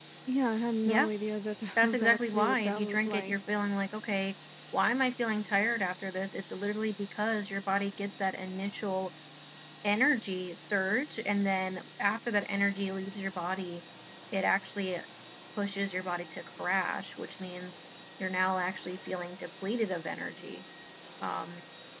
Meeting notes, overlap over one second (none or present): present